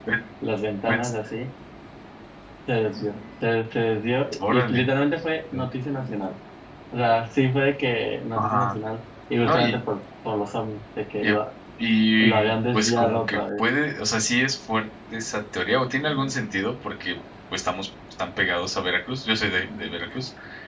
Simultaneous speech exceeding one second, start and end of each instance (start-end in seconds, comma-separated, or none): 12.2-13.6